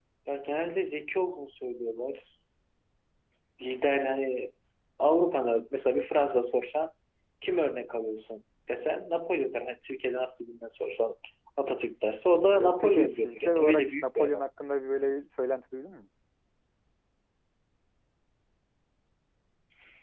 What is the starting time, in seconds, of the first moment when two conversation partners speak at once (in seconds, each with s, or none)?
12.5 s